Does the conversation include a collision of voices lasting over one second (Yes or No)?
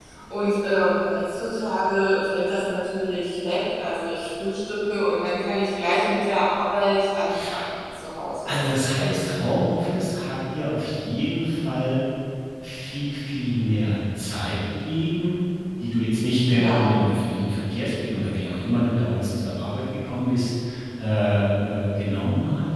No